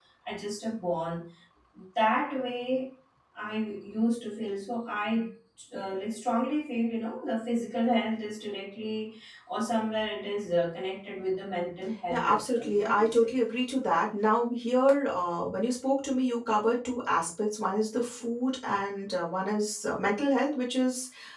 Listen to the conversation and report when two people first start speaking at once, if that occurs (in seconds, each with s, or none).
12.1 s